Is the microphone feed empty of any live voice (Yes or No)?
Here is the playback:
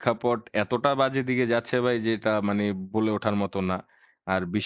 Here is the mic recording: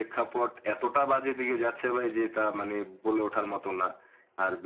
Yes